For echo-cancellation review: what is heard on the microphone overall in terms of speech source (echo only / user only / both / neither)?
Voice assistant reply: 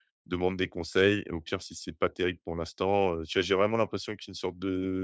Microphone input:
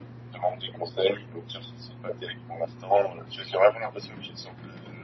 echo only